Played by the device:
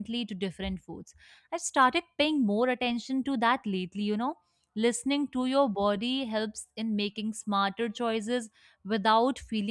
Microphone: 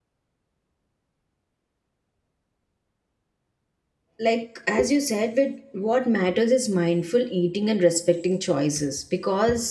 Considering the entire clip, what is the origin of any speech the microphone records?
user only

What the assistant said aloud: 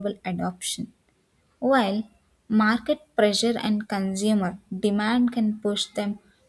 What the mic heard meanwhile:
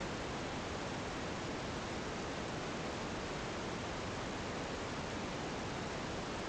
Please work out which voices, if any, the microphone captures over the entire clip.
neither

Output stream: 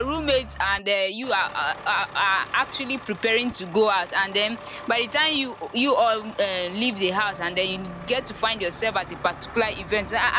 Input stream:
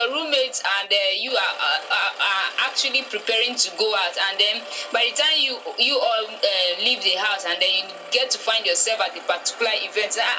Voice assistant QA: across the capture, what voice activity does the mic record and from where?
echo only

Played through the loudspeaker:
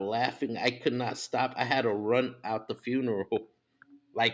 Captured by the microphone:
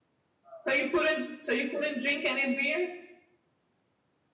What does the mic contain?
user only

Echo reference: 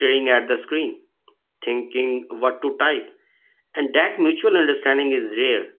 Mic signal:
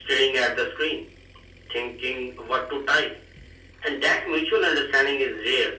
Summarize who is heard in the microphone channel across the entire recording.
echo only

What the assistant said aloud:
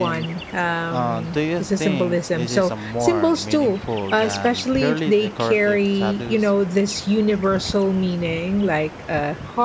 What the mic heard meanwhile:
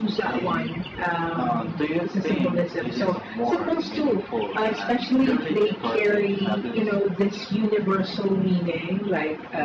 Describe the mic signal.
echo only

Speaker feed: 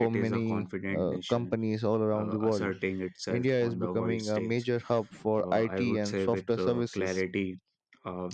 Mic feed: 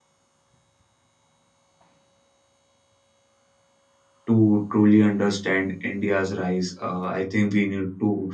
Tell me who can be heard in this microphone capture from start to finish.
user only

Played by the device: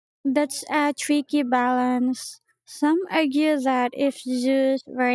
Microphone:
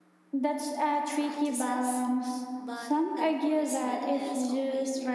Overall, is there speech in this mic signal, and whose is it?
both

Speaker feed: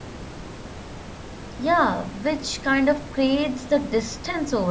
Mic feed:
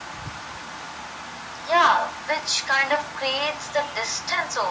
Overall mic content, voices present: echo only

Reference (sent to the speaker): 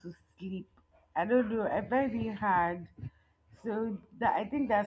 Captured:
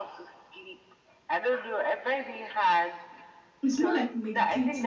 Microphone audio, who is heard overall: both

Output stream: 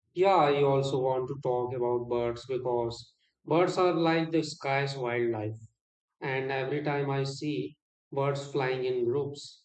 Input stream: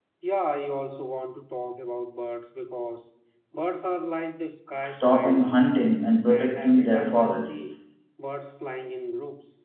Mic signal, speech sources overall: both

